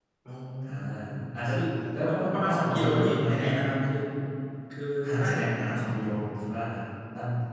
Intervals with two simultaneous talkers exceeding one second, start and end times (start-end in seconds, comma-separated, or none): 2.0-3.5